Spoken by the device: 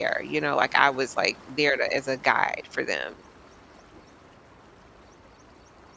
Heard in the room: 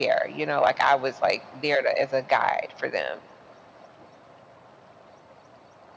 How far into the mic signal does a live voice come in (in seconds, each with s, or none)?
none